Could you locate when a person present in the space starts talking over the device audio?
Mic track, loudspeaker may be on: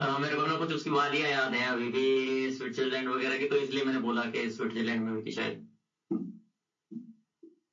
none

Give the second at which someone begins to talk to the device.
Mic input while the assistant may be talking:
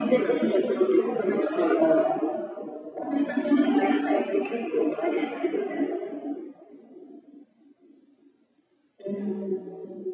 9 s

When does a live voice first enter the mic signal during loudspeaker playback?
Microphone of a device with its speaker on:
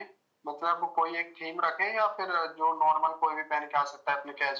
none

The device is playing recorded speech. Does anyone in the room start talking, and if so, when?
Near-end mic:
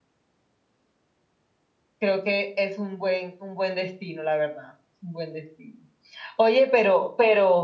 2 s

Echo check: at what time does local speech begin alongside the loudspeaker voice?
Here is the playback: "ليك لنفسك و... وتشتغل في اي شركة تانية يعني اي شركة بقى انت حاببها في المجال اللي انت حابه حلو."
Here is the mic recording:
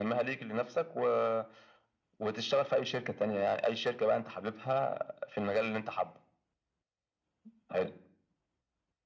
none

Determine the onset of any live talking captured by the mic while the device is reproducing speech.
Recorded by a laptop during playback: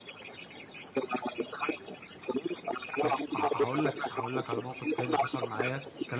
3 s

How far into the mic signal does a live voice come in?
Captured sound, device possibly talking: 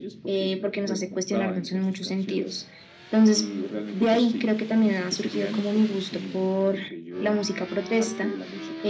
none

